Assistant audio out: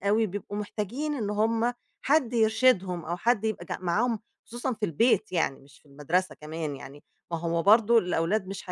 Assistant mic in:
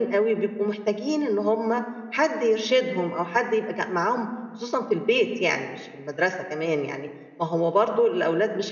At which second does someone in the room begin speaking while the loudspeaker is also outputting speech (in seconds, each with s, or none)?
none